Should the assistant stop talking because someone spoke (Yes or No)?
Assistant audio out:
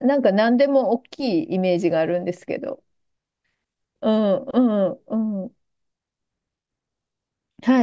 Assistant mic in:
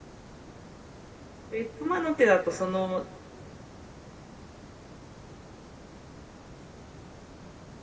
Yes